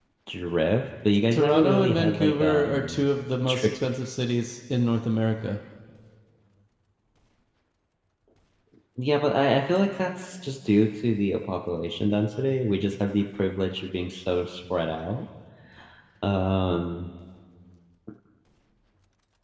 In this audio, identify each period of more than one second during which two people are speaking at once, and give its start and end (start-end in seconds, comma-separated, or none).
1.3-3.0